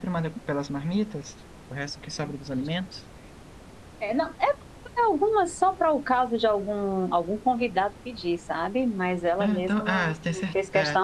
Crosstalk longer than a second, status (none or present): present